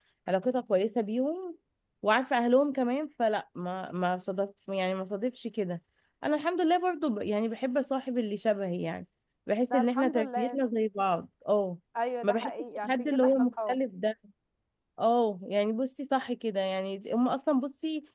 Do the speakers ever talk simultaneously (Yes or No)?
Yes